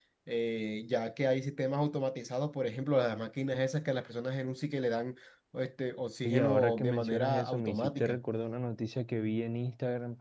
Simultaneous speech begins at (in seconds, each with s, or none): 6.2 s